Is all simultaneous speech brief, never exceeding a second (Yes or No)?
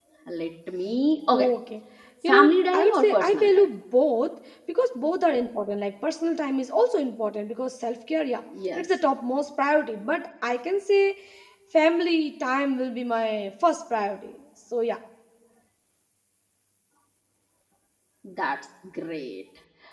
No